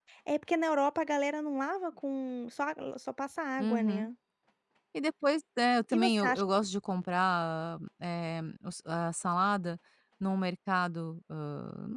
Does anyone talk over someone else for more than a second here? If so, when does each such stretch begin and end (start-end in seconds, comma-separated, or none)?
none